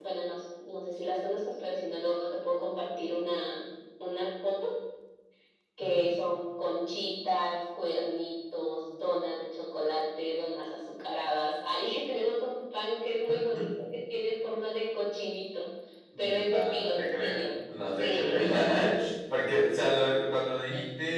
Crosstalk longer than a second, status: present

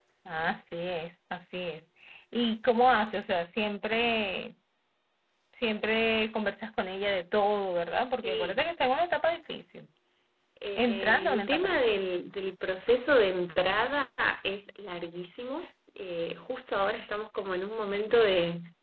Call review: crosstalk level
present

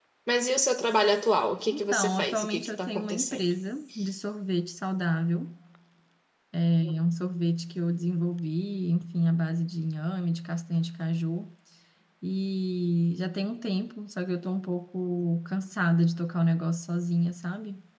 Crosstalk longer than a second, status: present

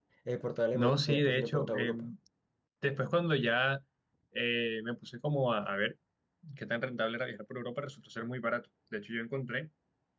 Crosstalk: present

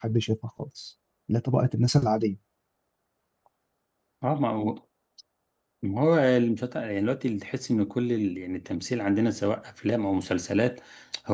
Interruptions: none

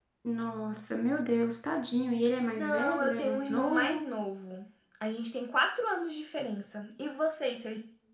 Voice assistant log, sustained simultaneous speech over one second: present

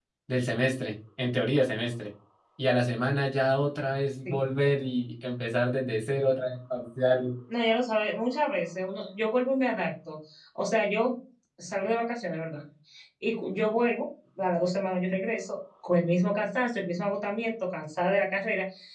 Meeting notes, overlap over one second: none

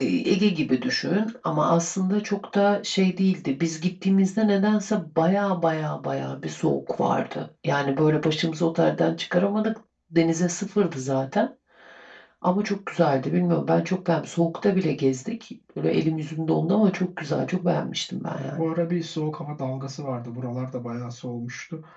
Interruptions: none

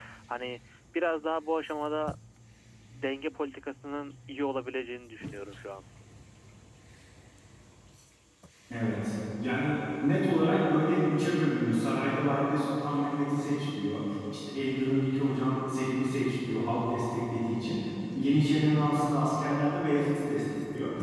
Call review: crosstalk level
none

